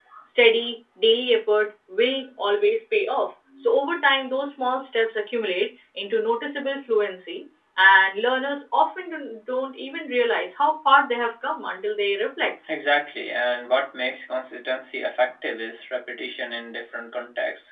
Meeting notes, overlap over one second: none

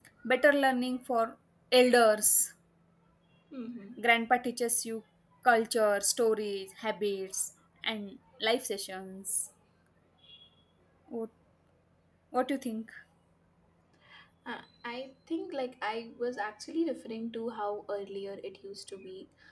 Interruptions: none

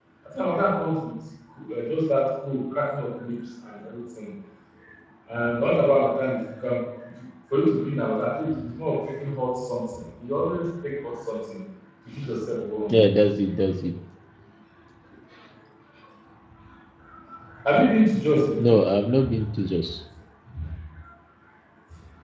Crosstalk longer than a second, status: none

